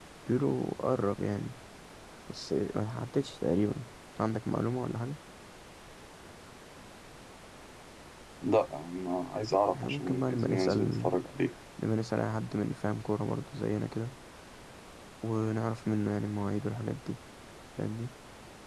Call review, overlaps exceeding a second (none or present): present